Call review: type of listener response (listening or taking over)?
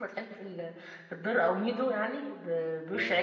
listening